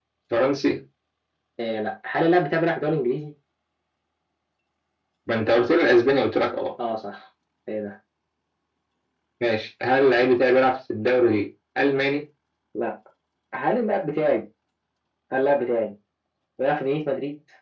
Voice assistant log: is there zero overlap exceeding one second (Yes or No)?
Yes